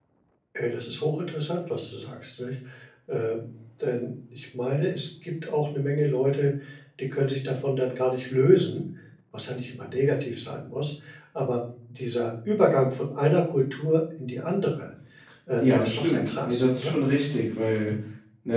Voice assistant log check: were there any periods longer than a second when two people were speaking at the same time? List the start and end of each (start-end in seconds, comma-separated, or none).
15.6-16.9